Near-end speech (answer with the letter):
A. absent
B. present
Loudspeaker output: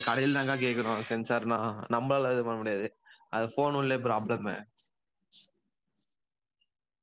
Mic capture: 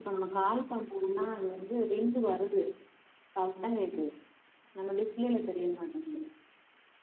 B